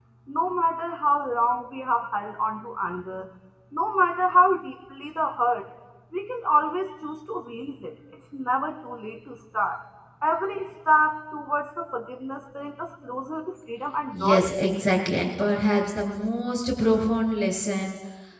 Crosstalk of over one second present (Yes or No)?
No